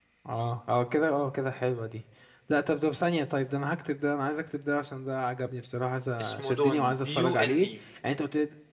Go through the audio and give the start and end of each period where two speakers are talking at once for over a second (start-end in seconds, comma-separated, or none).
6.2-7.6